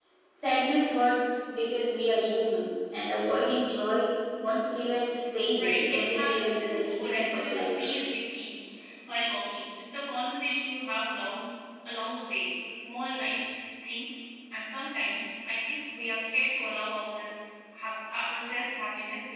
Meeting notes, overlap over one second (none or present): present